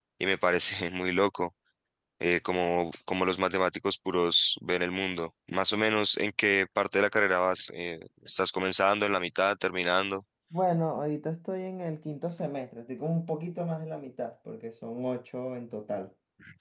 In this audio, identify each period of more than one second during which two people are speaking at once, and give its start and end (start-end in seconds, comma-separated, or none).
none